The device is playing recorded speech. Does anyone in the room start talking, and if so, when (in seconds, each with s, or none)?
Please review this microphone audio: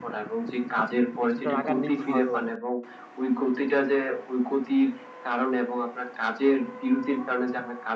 1.2 s